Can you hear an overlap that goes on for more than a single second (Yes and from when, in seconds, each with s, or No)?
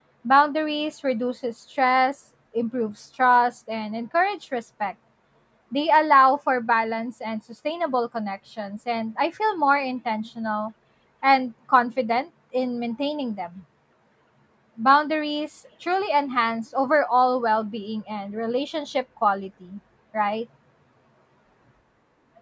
No